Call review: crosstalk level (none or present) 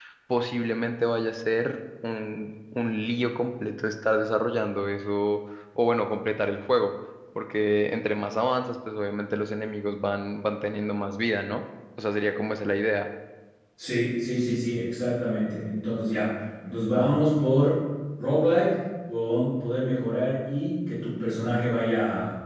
none